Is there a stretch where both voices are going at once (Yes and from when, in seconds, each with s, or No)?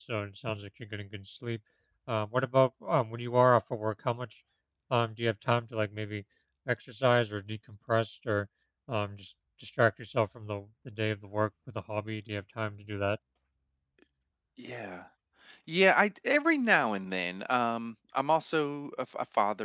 No